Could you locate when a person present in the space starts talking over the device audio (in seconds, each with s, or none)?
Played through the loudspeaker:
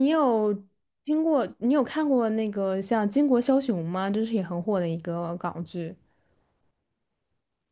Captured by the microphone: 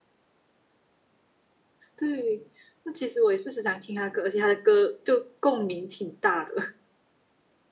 1.9 s